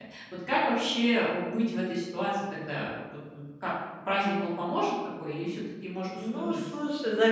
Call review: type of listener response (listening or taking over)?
taking over